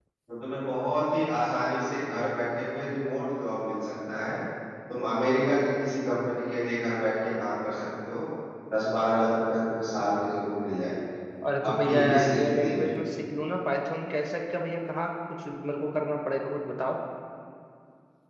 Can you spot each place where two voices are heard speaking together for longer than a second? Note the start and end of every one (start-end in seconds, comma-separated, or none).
11.7-12.9